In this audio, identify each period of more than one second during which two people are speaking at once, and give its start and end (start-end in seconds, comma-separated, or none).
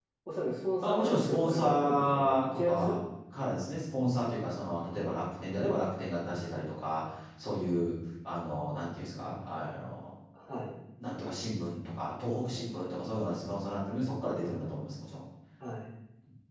0.9-3.0